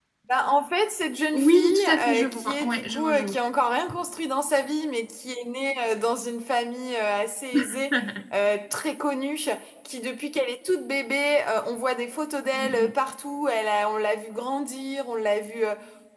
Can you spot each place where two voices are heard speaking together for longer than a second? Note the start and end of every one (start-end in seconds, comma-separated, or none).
1.3-3.3